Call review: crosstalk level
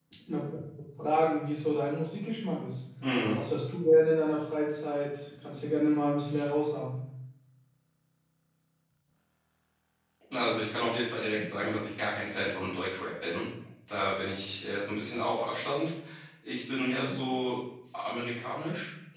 none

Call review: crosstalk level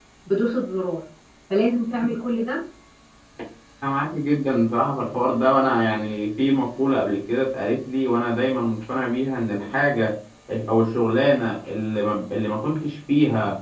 none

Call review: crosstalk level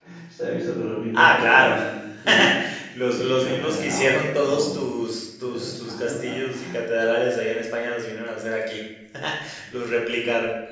present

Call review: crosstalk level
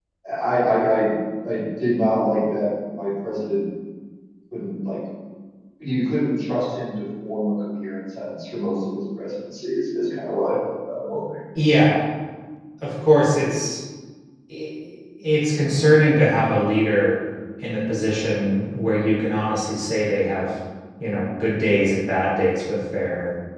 none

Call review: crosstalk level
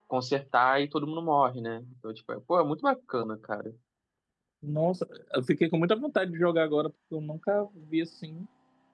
none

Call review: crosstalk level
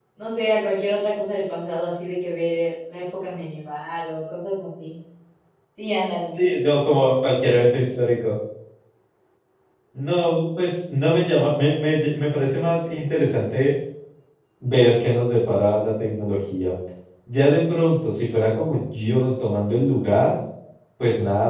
none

